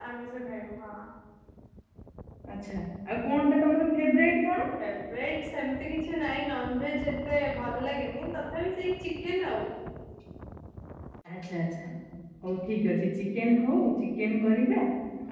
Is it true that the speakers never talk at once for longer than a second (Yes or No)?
Yes